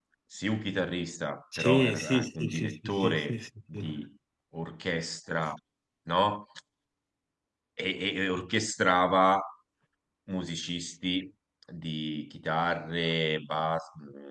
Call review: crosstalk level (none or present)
present